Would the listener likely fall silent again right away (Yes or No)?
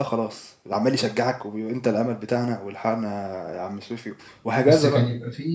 No